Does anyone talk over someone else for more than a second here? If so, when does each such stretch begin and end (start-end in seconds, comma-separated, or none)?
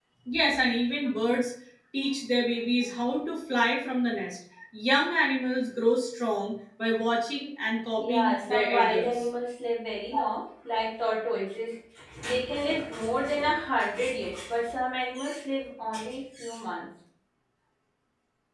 8.0-9.3